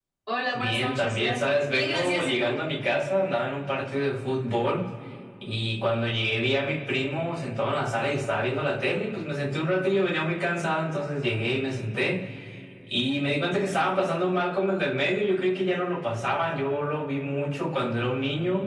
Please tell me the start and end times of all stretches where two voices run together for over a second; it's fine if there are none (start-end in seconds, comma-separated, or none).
0.5-2.5